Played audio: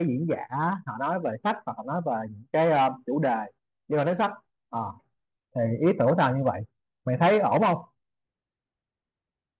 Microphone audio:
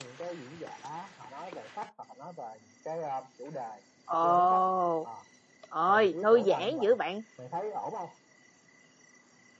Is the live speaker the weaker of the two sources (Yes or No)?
No